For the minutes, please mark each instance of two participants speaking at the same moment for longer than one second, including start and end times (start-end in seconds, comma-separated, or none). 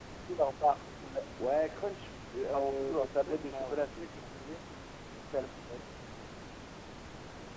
2.5-4.0